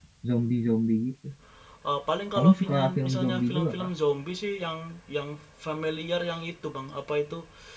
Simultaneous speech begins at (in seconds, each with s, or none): 2.4 s